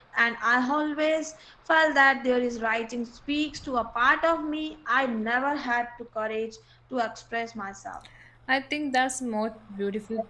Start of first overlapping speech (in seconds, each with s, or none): none